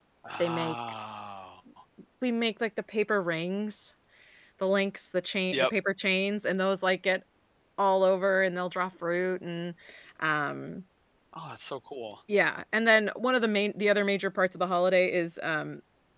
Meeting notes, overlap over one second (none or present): none